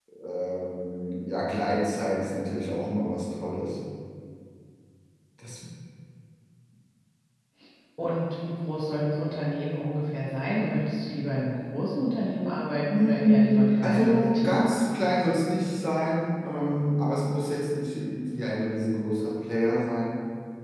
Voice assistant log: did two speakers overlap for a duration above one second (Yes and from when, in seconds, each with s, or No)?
Yes, from 12.9 s